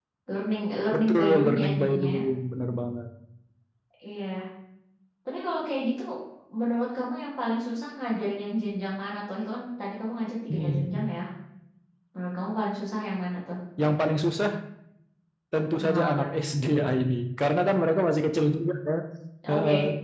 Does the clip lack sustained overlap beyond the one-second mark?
No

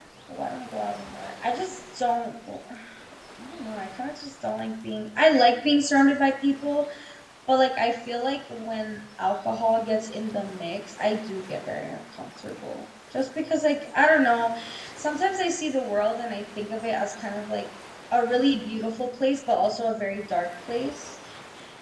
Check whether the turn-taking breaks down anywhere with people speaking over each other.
No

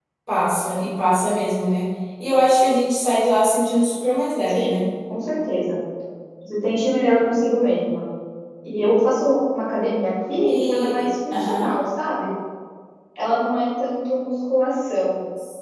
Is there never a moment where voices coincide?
No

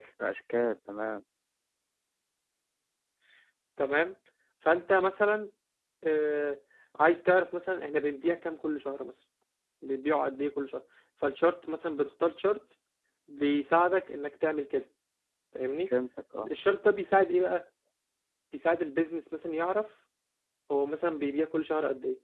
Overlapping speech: No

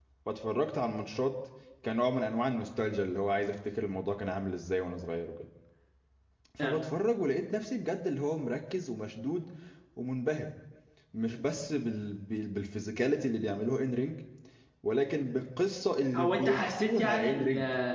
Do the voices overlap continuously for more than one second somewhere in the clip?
Yes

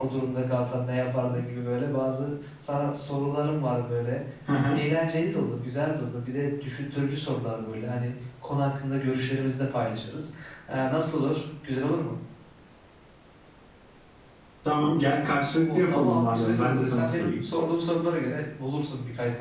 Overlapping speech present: Yes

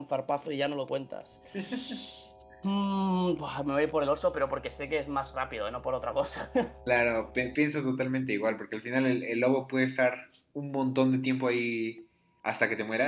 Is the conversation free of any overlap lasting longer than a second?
Yes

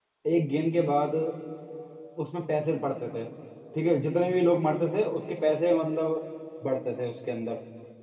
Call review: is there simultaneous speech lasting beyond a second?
No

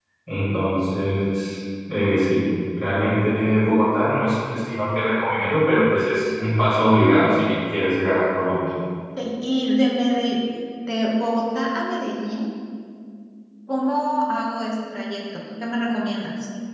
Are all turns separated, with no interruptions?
Yes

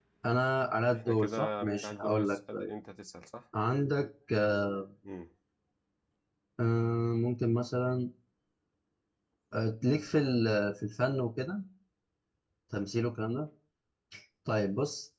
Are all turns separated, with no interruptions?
No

